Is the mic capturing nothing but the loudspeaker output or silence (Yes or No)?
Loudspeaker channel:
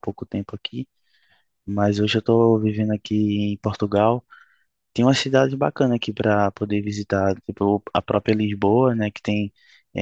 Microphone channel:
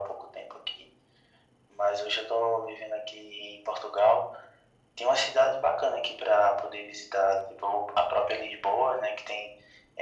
Yes